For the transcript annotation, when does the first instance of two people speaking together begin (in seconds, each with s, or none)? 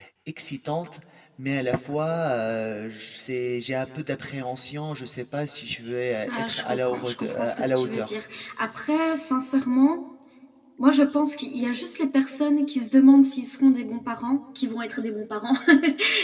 6.3 s